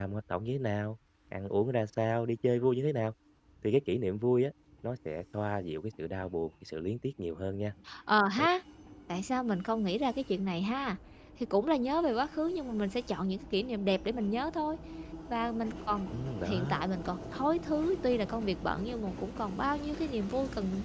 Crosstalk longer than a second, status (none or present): none